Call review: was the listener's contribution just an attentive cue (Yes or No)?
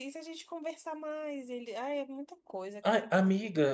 No